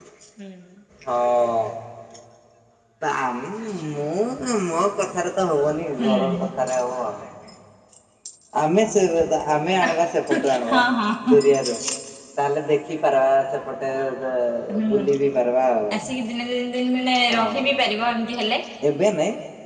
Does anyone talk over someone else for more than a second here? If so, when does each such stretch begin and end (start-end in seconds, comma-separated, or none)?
none